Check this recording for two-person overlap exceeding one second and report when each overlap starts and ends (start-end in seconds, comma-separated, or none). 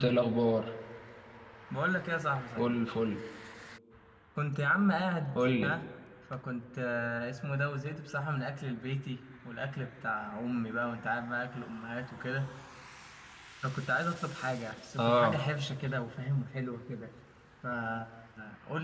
none